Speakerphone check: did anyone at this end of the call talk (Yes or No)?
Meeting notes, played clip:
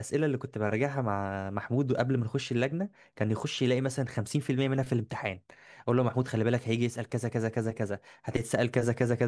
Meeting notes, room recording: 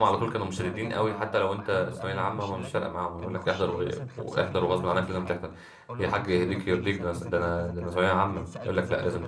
Yes